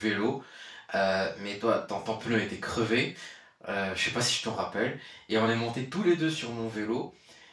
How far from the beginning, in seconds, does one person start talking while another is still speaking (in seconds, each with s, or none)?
none